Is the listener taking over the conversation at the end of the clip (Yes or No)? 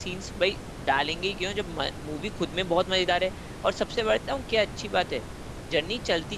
No